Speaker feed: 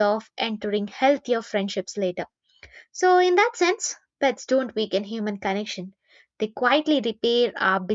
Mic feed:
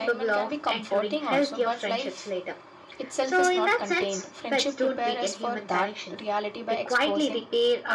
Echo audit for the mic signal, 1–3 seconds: both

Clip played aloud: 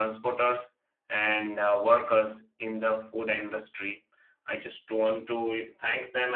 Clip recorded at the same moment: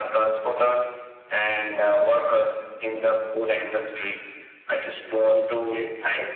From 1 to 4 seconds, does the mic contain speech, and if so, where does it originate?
echo only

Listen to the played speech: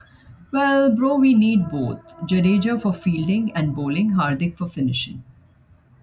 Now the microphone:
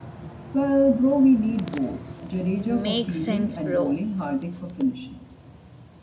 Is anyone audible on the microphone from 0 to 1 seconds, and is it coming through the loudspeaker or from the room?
echo only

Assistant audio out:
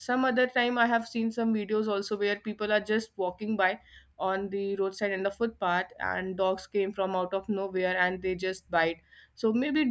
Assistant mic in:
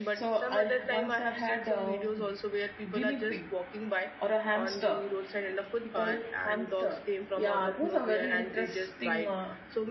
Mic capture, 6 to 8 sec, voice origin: both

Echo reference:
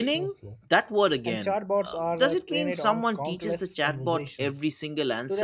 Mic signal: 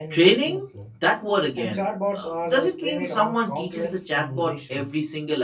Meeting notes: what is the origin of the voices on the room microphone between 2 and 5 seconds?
echo only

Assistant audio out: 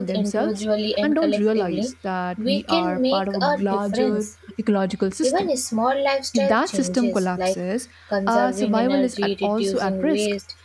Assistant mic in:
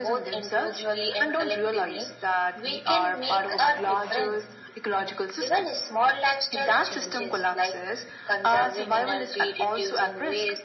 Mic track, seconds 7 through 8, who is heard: echo only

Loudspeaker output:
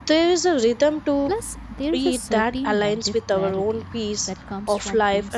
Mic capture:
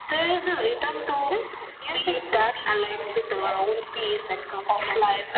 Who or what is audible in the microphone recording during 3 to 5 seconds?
echo only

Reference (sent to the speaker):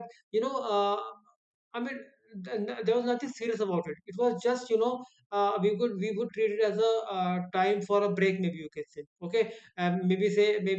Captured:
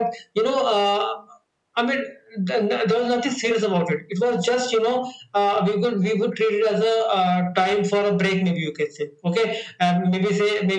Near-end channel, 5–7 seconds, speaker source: echo only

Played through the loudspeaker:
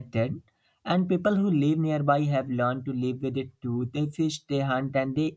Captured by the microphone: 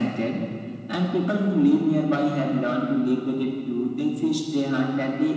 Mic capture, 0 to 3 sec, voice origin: echo only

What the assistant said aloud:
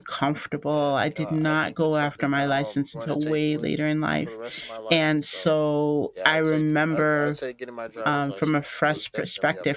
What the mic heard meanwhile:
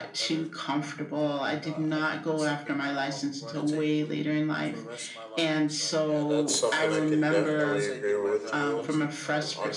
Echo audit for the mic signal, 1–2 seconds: echo only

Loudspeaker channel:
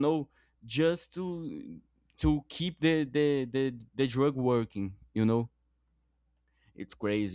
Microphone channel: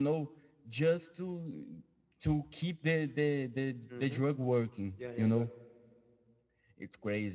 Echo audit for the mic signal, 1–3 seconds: echo only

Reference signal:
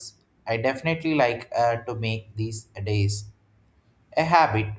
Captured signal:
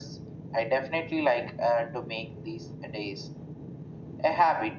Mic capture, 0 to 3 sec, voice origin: echo only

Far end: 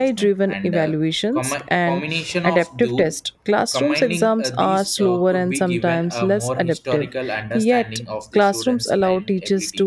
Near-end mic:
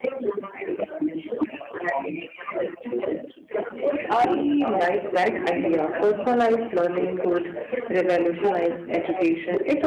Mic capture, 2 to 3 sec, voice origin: echo only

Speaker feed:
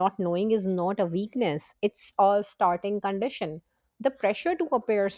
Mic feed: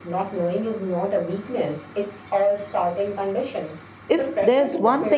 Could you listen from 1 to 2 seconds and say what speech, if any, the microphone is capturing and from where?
echo only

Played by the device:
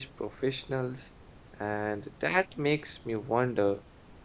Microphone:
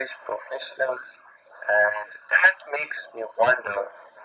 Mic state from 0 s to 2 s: echo only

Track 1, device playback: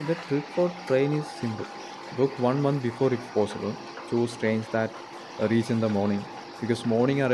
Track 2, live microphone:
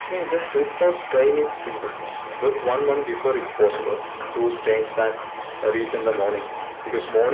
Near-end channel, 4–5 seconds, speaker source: echo only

